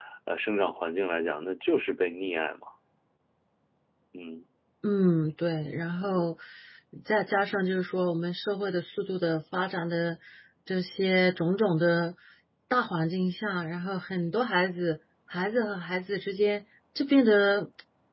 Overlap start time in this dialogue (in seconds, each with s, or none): none